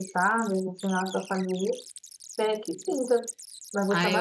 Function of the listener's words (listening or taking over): taking over